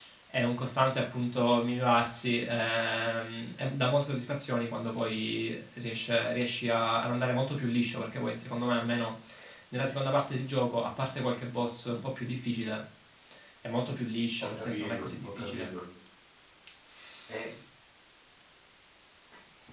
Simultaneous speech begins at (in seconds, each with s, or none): 14.4 s